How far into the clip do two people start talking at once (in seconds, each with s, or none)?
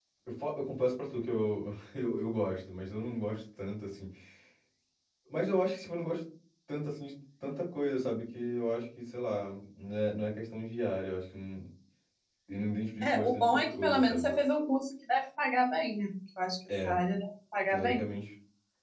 13.0 s